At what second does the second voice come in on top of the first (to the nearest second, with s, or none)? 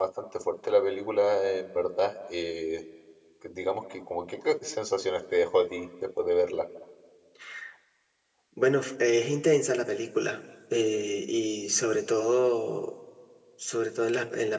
none